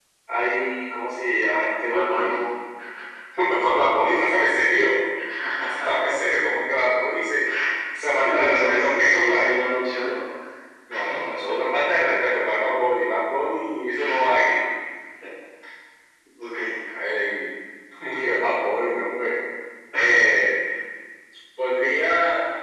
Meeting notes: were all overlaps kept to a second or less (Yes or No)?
No